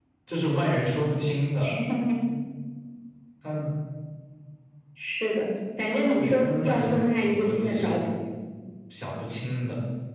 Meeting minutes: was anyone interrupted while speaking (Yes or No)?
Yes